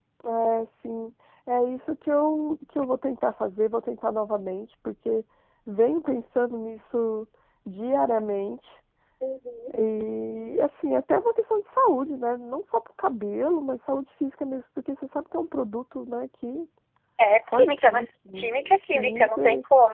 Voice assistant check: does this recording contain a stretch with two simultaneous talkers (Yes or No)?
Yes